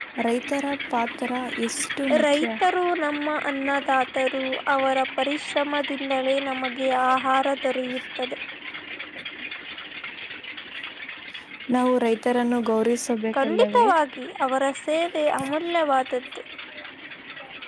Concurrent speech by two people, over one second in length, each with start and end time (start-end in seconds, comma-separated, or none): none